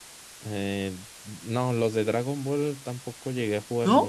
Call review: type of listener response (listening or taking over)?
taking over